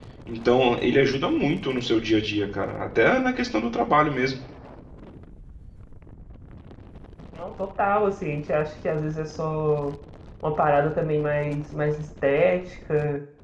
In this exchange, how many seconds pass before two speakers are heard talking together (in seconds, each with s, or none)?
none